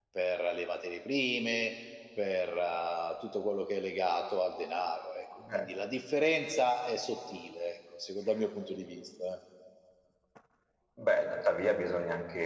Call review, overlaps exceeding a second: none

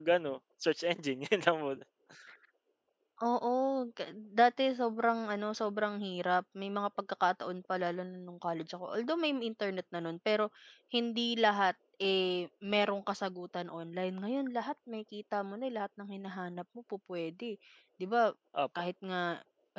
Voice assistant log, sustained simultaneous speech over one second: none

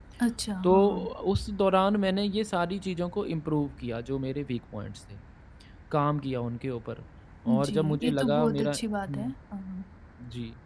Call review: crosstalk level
present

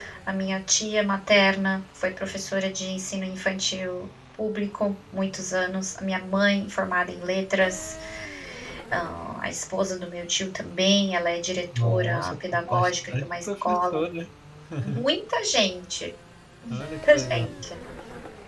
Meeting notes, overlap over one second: present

